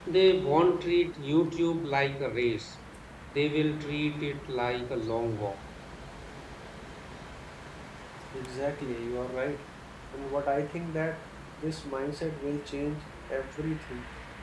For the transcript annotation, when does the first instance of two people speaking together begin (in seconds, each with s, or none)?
none